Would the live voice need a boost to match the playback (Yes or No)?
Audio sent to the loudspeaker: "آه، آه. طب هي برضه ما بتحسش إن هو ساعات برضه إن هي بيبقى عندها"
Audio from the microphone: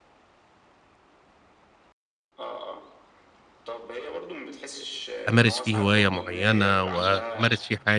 No